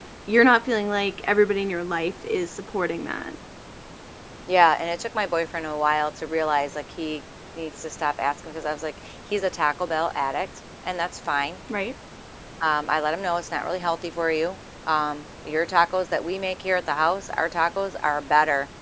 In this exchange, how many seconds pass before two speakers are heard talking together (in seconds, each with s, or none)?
none